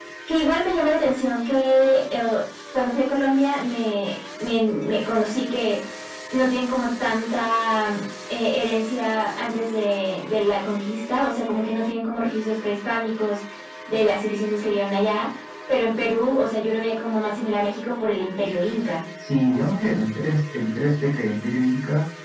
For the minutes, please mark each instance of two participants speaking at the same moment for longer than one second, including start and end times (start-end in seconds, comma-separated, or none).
none